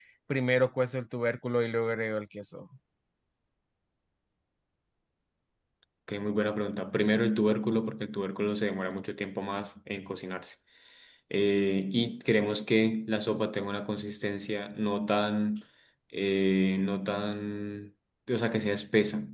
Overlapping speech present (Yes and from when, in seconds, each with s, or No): No